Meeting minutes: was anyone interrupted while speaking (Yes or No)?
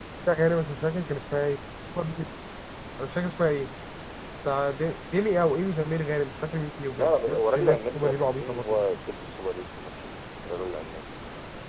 Yes